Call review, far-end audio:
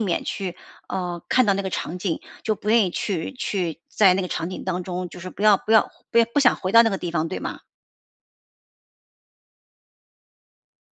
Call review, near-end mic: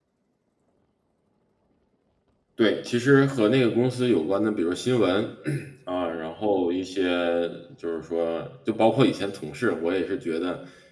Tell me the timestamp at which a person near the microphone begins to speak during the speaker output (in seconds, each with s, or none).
2.6 s